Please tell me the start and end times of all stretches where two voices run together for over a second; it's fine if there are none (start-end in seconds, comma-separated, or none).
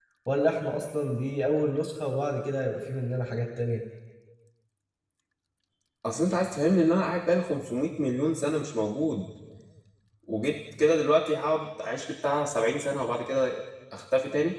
none